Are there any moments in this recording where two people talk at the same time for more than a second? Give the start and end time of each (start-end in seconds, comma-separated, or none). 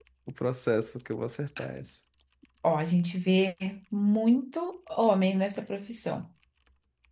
none